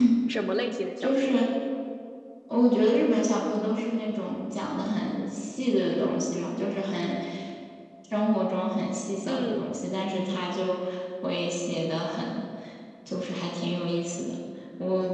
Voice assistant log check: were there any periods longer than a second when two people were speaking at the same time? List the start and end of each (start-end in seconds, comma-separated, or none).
none